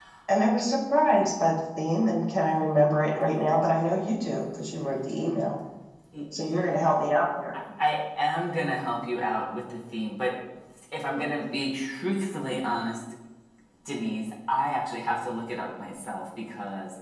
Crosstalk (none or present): none